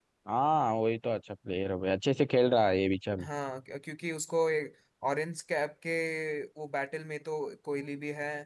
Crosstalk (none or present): none